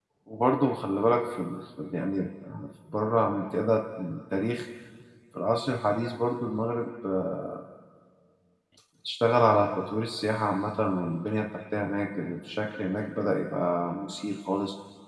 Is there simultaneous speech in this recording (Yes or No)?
No